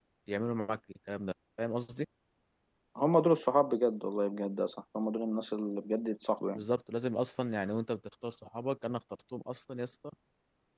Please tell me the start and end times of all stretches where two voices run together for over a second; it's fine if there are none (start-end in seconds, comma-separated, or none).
none